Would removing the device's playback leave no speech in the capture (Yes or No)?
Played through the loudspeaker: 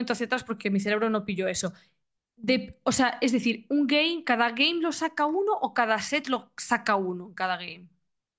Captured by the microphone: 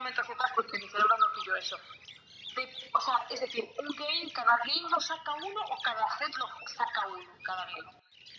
Yes